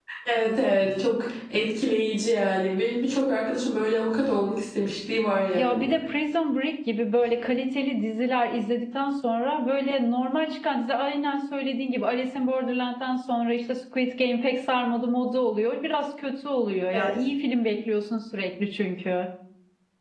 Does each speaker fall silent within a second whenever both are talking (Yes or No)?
Yes